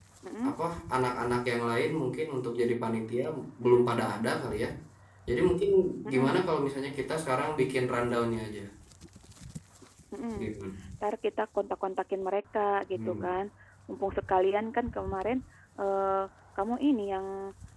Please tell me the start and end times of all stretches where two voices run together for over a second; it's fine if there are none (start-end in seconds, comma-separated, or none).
none